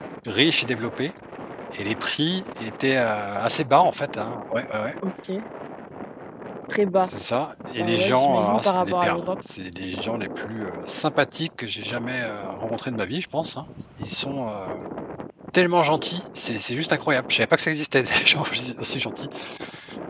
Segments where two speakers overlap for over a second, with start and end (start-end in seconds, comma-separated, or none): 7.8-9.3